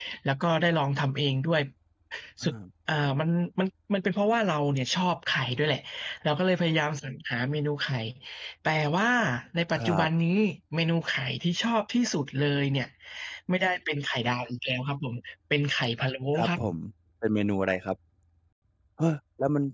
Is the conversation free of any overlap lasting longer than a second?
Yes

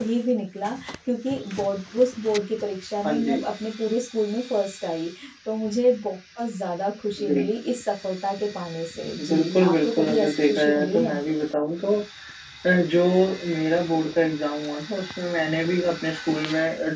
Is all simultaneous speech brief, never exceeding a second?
No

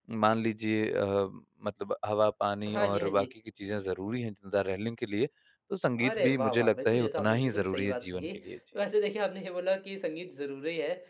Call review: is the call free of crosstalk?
No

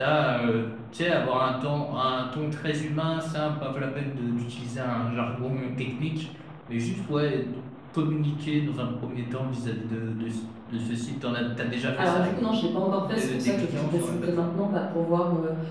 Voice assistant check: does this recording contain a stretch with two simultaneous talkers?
Yes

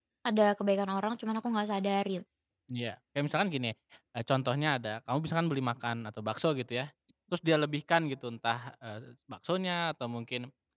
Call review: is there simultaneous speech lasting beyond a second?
No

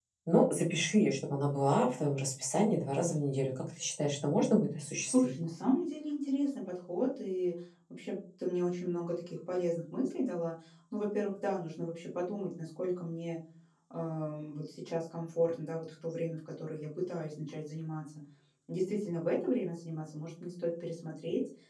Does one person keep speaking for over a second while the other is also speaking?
No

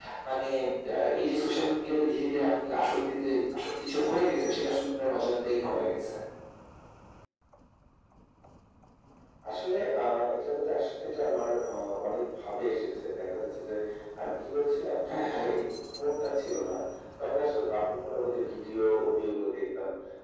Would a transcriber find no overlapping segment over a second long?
Yes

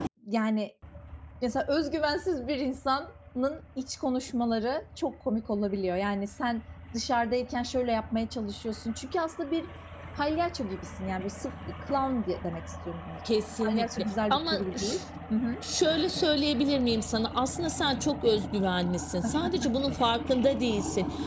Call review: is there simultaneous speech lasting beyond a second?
Yes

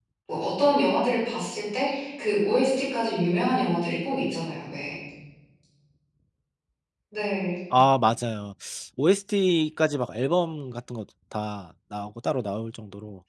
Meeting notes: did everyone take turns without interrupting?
Yes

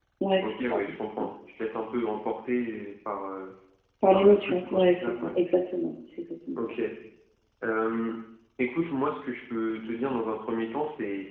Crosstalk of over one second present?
Yes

